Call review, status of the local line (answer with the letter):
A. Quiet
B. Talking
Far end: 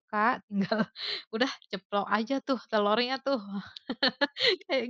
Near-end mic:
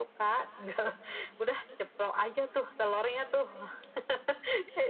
A